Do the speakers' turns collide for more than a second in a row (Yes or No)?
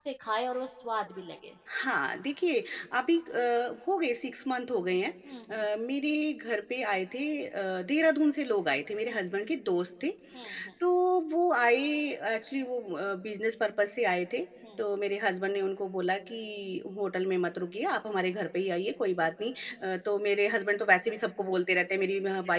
No